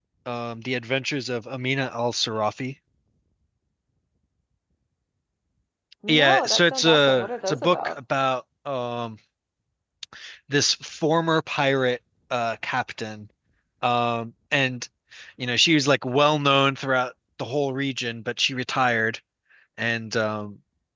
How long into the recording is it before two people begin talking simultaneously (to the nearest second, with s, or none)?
6 s